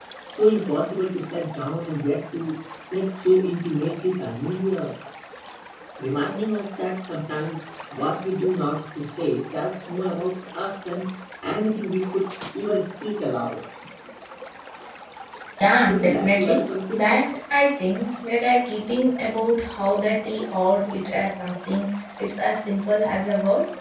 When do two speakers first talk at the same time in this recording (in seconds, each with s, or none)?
15.9 s